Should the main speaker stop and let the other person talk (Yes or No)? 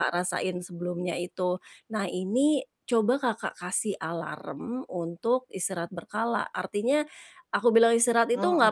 No